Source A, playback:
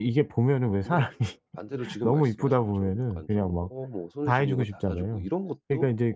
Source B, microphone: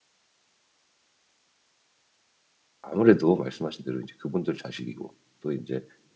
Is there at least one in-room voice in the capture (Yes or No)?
Yes